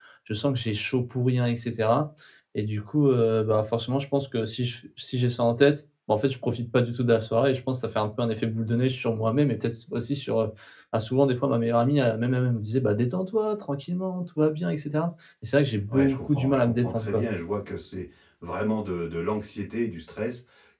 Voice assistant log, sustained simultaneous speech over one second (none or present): present